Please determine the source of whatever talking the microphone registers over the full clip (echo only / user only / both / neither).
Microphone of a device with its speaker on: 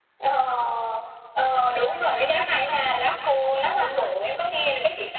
both